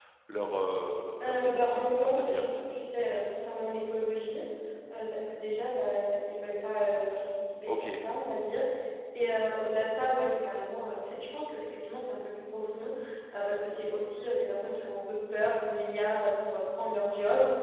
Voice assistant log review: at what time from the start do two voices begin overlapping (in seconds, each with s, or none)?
1.2 s